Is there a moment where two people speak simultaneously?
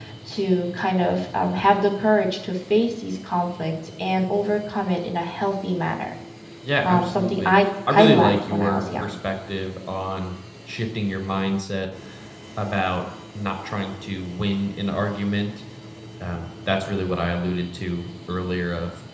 Yes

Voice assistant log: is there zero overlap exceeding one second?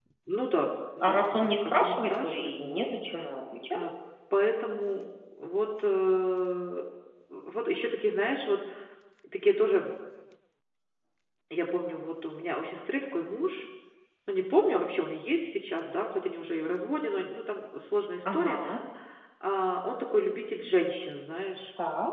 No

